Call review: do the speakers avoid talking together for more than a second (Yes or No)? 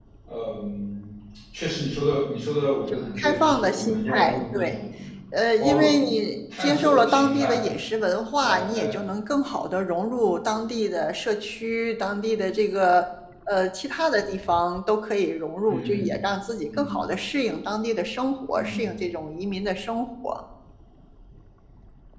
No